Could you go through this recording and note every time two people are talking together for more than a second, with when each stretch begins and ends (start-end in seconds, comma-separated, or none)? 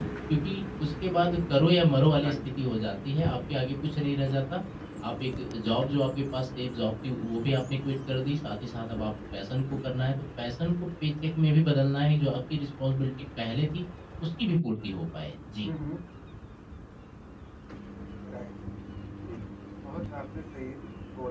none